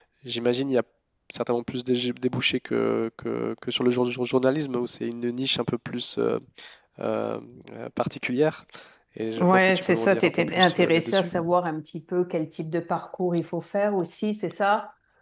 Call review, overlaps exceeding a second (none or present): present